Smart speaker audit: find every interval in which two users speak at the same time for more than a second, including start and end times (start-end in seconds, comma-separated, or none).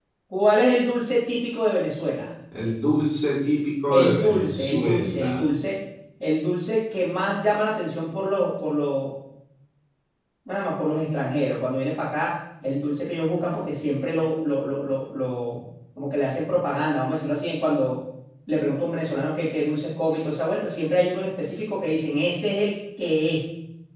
3.9-5.4